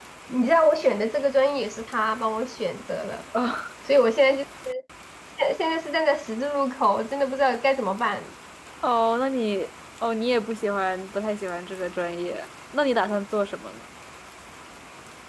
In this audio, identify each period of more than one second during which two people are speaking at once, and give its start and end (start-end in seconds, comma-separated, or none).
none